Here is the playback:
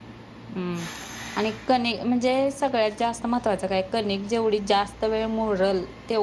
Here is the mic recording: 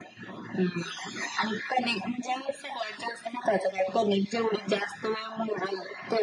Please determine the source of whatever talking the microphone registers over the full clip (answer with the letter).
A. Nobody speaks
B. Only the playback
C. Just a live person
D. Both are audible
B